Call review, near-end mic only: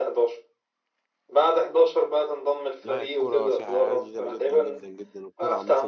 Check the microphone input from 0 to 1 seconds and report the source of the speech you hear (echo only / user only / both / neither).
echo only